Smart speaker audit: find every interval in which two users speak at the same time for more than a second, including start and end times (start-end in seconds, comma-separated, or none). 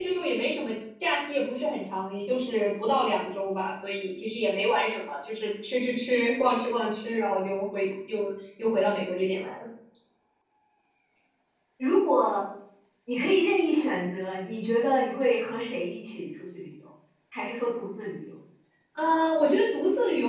none